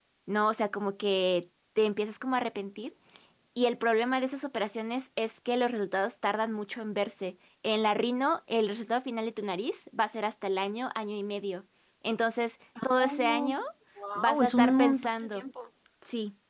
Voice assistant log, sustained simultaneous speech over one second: present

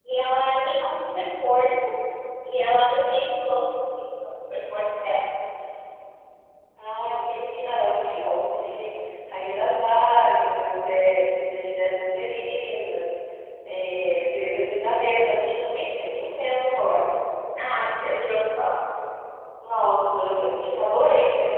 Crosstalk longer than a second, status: none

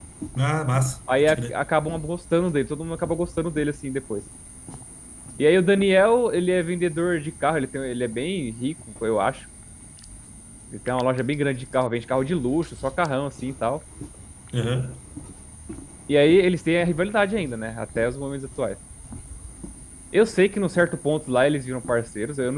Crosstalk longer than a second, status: none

